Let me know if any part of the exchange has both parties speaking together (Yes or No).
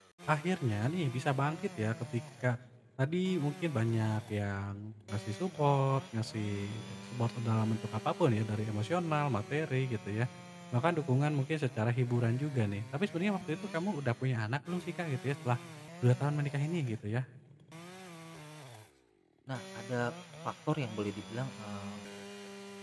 No